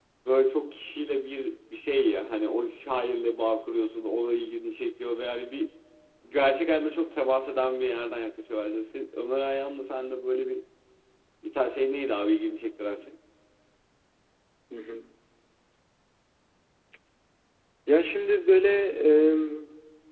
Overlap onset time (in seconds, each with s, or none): none